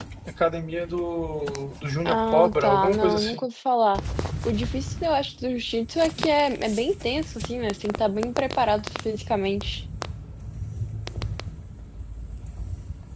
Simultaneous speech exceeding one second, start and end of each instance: 2.0-3.5

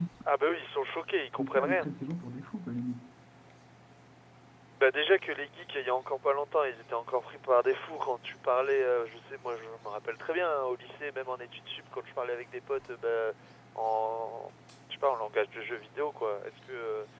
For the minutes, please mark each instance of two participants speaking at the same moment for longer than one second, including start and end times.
none

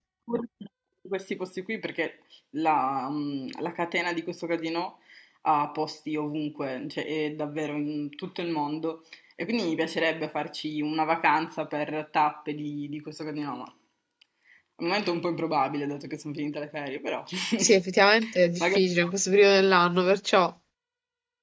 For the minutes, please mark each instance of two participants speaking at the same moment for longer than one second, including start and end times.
none

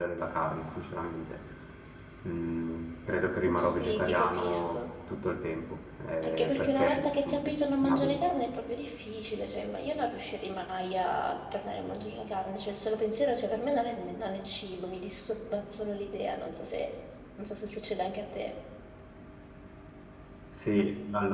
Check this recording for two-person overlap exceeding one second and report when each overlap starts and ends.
3.5-4.8, 6.2-8.2

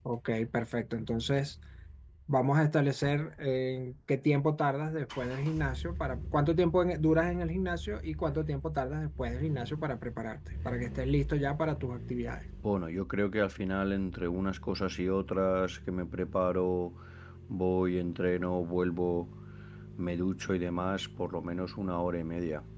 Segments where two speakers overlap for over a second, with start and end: none

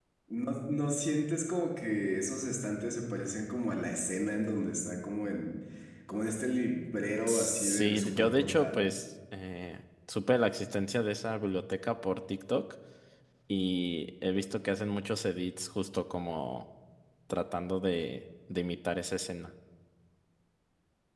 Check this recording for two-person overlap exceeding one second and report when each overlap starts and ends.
7.3-8.8

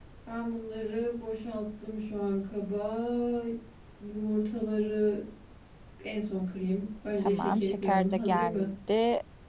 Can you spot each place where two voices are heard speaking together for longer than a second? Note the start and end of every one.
7.2-8.7

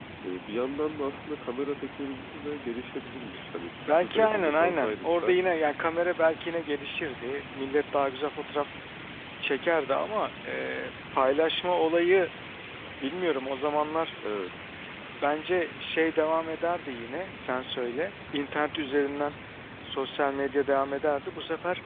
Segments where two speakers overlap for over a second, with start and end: 3.8-5.4

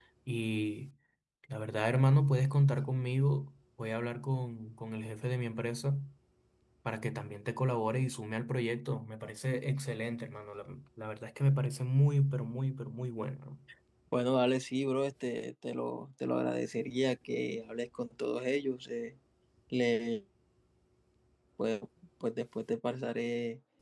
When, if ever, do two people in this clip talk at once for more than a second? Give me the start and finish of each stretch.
none

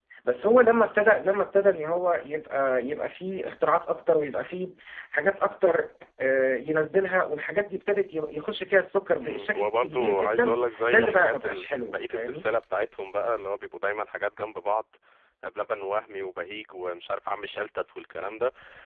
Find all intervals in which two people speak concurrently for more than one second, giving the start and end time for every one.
9.2-12.5

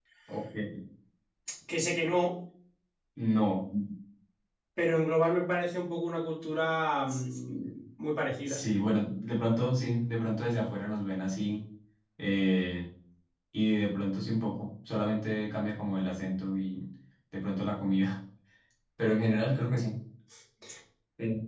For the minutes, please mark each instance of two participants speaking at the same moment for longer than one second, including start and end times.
none

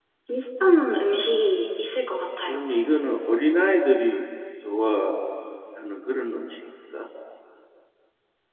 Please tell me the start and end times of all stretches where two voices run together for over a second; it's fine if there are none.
none

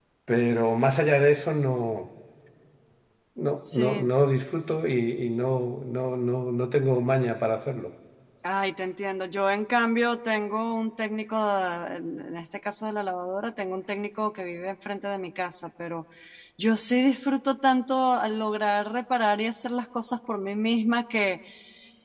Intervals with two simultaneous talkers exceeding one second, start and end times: none

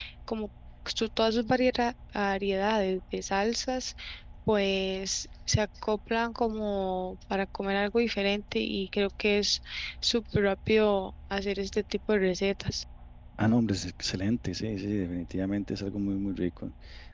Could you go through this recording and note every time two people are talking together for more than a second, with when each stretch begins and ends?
none

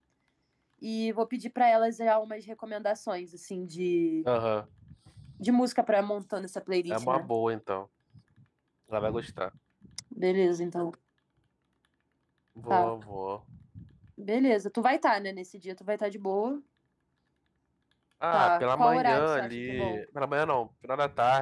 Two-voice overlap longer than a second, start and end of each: 18.3-20.0

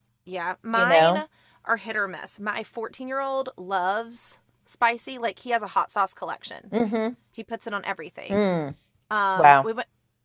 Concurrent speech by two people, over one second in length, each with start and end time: none

